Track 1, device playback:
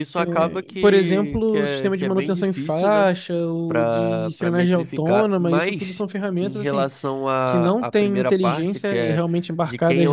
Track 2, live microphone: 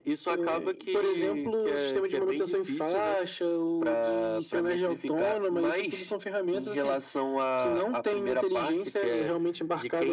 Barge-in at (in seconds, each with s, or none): none